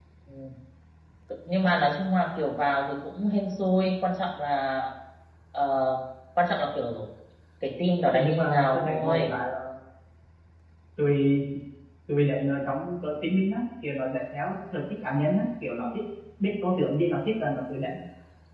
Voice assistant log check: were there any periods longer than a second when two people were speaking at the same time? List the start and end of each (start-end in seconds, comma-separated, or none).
8.1-9.3